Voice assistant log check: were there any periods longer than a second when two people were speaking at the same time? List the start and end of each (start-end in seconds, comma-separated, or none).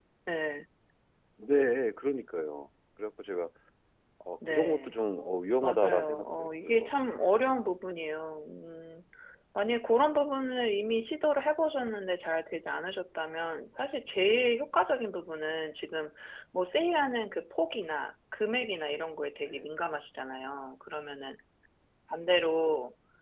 5.6-7.0